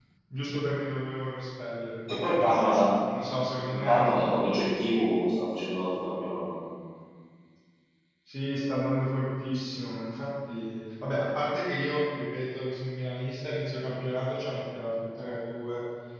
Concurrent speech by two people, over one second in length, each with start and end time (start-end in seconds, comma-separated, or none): none